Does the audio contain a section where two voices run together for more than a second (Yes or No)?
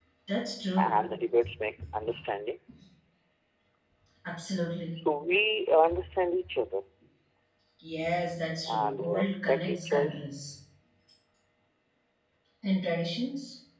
Yes